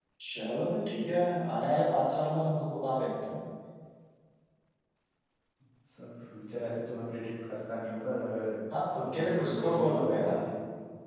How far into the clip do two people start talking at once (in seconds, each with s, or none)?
9.0 s